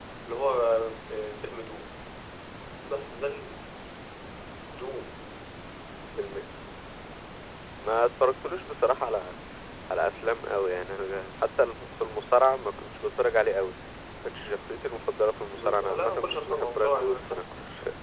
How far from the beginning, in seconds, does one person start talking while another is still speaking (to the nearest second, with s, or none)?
16 s